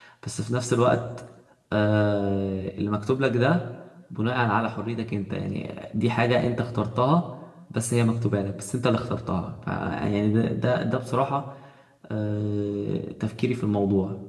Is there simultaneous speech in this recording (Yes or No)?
No